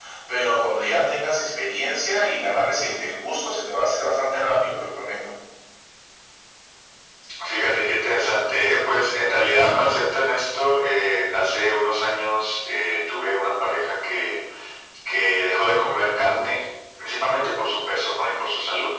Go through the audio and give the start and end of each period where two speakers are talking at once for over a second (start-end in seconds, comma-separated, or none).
none